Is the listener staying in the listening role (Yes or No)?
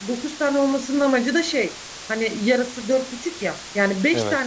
Yes